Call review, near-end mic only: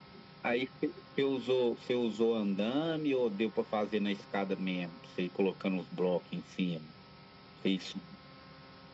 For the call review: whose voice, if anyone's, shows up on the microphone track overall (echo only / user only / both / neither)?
echo only